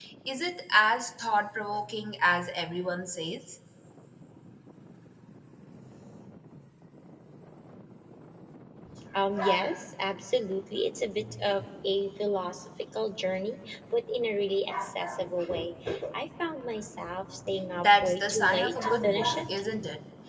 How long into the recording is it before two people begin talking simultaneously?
17.8 s

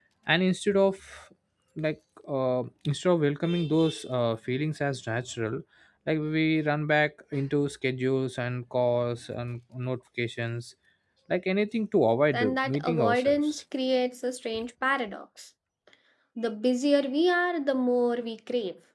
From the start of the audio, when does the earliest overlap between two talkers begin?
12.3 s

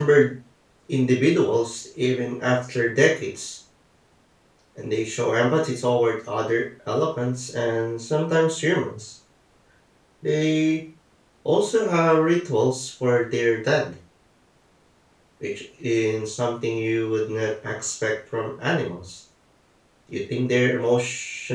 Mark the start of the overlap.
none

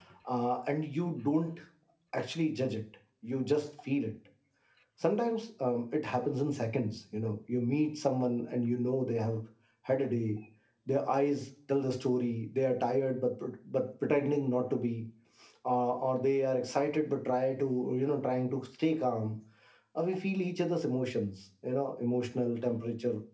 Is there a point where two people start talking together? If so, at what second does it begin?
none

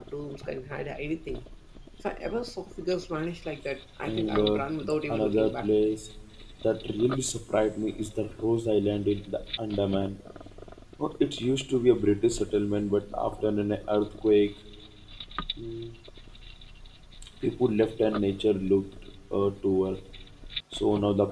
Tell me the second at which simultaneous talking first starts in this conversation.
4.0 s

